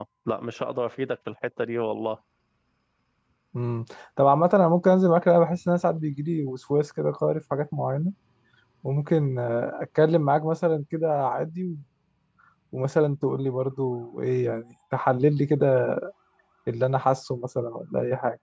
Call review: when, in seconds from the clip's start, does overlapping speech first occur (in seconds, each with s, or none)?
none